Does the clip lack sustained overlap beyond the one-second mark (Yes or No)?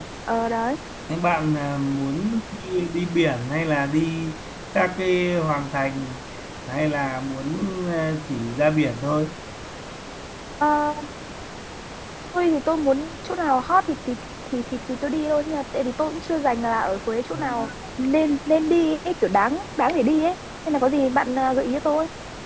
Yes